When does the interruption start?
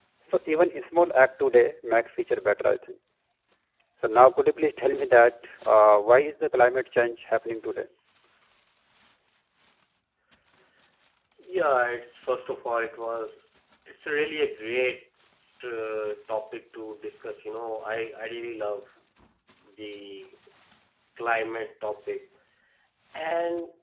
none

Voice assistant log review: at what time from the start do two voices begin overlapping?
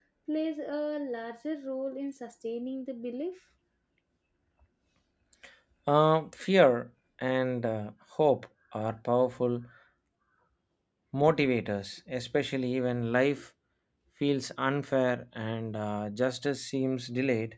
none

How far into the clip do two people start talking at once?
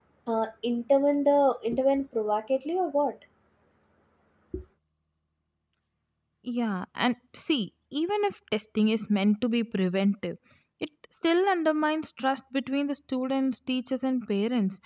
none

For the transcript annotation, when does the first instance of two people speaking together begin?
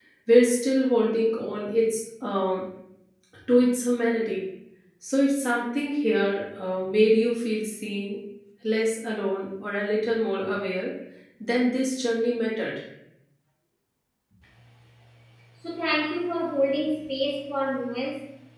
none

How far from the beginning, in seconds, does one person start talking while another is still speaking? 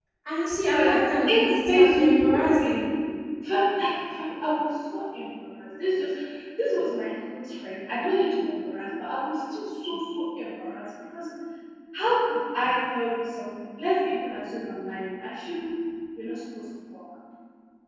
1 s

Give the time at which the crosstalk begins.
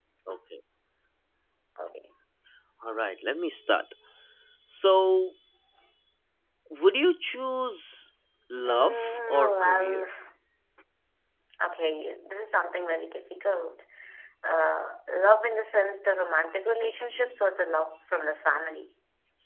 9 s

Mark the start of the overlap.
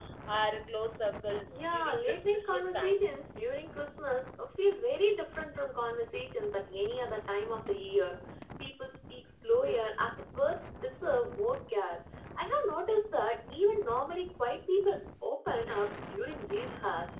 1 s

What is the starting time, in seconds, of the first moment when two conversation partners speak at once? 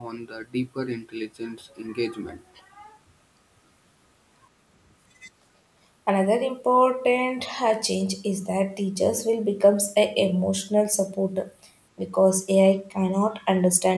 none

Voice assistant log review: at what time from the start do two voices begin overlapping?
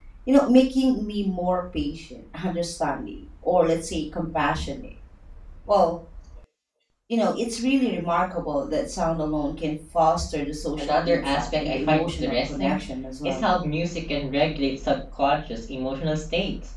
11 s

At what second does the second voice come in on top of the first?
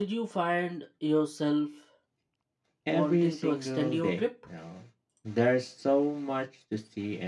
3 s

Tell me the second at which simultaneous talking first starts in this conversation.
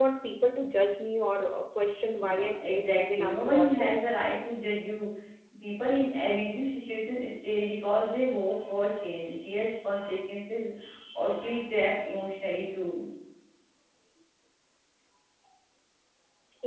2 s

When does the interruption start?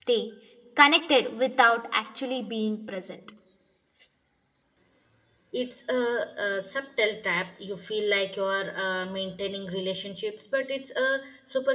none

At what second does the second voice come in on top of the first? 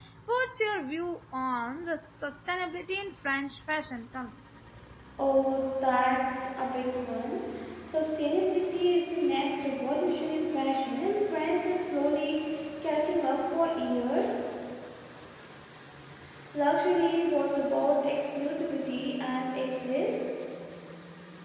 none

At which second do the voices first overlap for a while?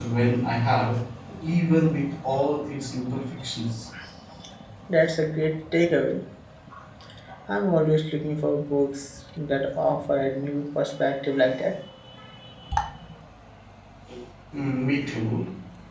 none

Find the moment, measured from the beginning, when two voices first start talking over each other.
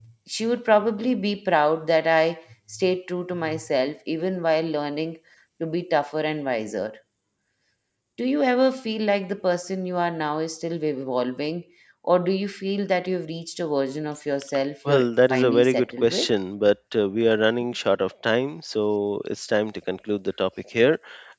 15 s

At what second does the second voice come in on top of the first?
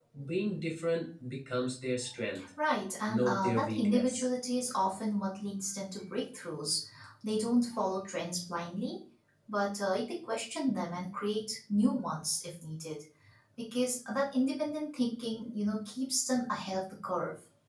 3 s

